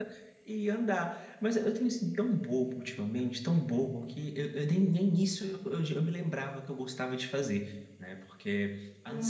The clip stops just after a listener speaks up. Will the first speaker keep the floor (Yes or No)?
No